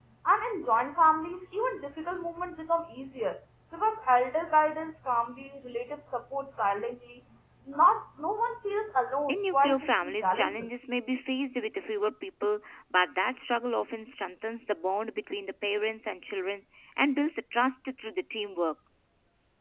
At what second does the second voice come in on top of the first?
9.3 s

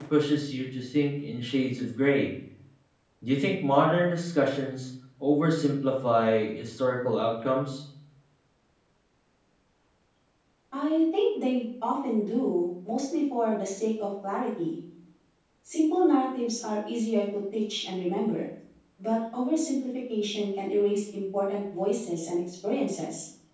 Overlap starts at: none

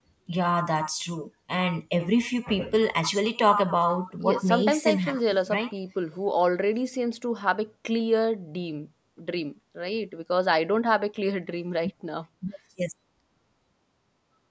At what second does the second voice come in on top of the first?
4.2 s

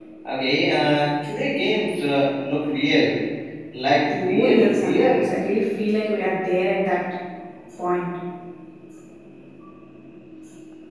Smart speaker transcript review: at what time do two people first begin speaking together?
4.1 s

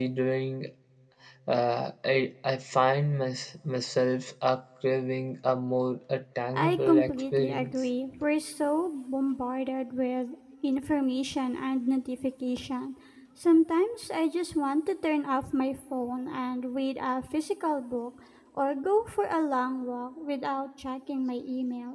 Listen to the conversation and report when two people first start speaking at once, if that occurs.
6.5 s

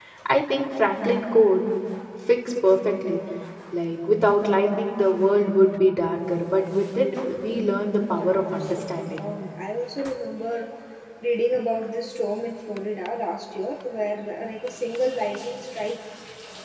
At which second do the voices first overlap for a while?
7.5 s

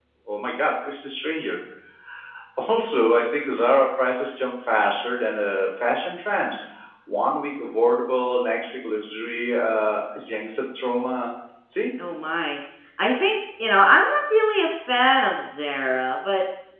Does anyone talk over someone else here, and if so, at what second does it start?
none

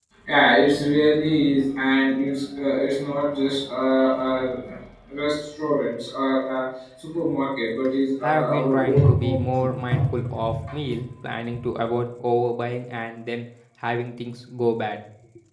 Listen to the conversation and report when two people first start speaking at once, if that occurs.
8.2 s

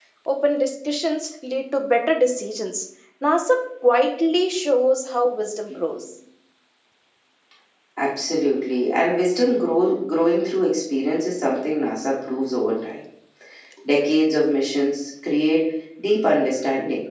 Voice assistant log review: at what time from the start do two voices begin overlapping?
none

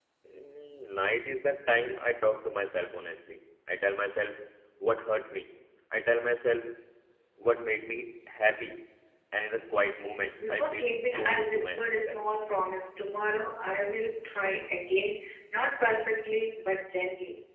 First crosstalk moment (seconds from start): 10.4 s

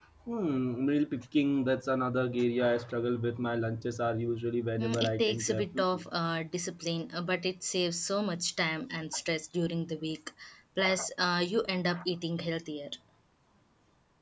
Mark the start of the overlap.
4.8 s

